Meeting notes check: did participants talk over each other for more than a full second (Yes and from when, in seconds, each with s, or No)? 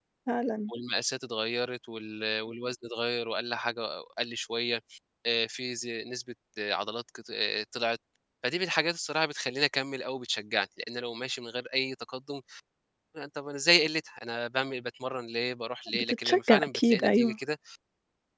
Yes, from 15.9 s